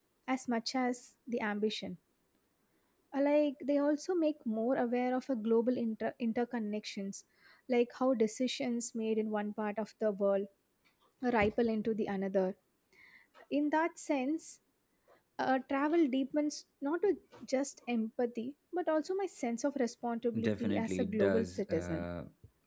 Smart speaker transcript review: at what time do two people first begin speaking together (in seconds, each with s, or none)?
20.3 s